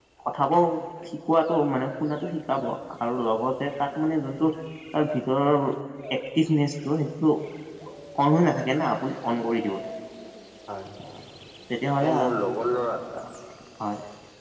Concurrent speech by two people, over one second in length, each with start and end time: none

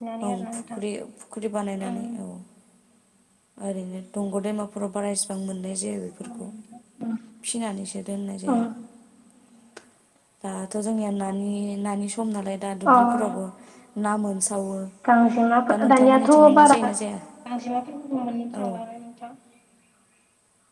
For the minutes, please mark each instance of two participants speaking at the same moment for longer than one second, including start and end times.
15.7-16.9

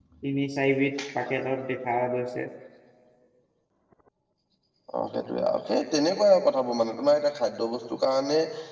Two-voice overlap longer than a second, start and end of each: none

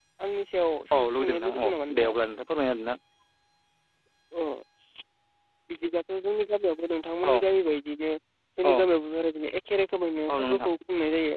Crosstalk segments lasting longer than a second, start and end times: 0.9-2.2

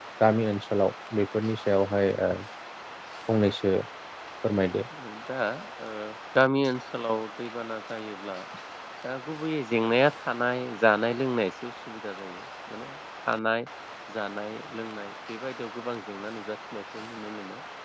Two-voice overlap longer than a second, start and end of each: none

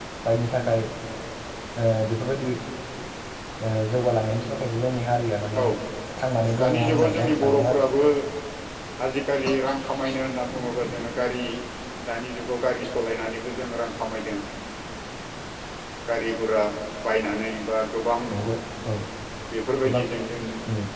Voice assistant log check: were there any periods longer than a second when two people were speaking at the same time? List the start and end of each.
6.6-7.9

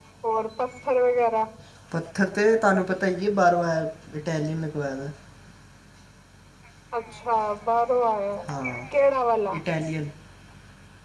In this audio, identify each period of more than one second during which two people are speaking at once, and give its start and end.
none

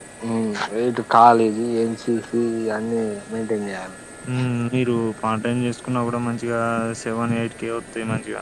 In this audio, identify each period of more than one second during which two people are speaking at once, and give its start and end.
none

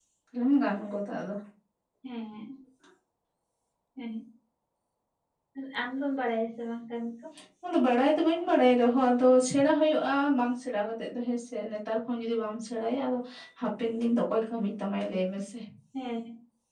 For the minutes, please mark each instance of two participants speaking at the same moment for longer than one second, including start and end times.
none

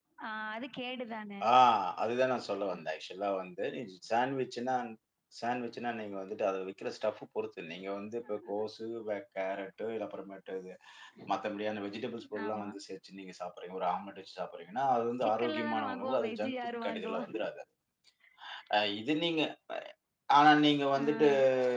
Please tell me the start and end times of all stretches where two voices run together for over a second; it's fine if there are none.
15.2-17.2

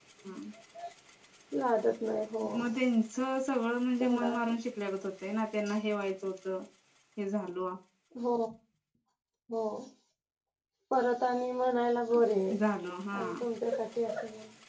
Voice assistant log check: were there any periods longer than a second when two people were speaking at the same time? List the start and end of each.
none

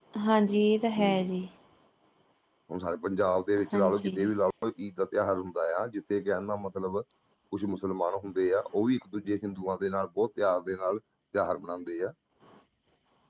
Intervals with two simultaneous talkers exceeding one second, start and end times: none

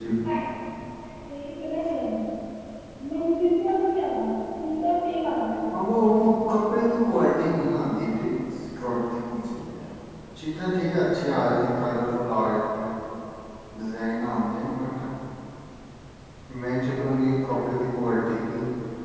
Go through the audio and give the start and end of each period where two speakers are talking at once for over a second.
none

